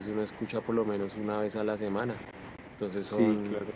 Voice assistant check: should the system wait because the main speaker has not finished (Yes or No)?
No